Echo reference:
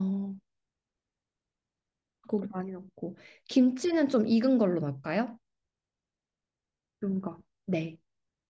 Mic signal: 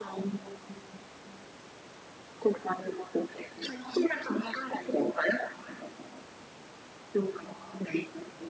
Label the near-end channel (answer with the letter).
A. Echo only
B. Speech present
A